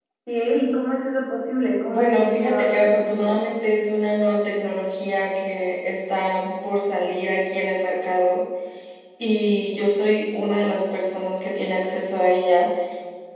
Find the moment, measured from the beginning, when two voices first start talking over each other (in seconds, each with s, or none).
1.9 s